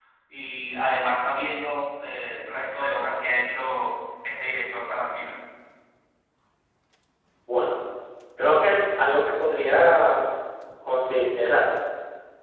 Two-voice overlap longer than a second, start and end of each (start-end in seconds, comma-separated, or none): none